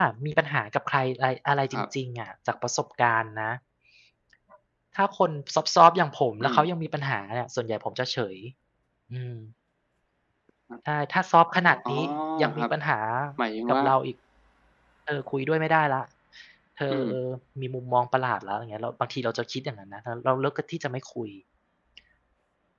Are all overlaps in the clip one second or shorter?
Yes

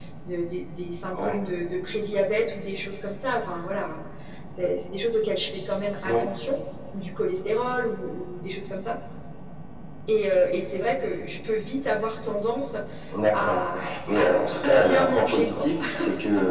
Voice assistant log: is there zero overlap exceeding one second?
No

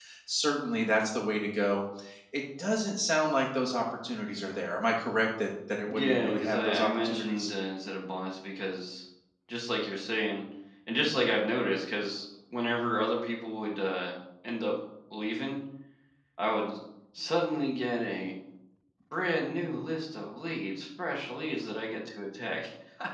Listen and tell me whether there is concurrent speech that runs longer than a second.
Yes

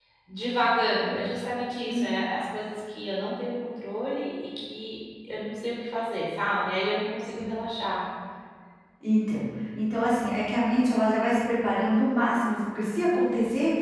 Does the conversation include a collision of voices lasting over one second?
No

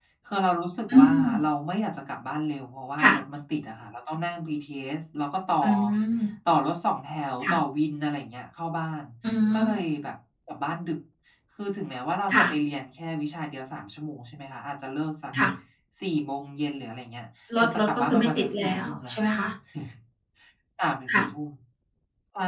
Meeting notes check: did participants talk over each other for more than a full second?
Yes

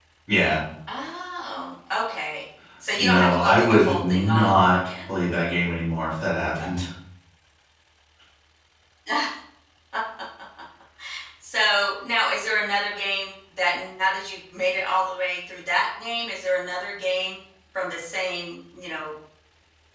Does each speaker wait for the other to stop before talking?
No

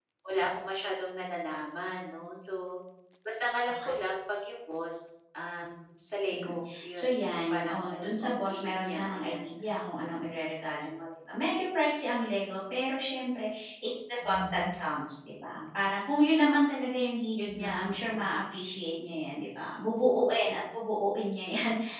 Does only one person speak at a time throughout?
No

